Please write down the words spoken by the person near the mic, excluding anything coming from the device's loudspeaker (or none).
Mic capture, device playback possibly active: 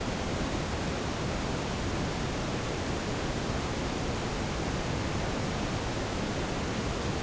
none